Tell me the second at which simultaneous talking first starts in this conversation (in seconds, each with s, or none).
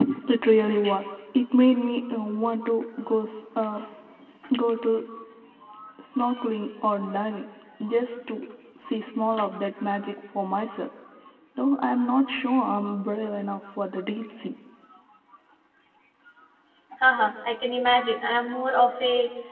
none